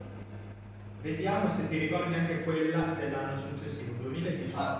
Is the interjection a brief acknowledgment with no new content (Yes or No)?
No